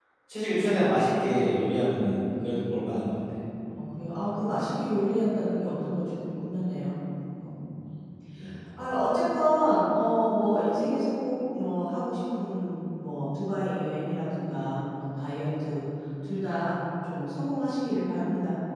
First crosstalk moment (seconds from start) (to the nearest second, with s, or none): none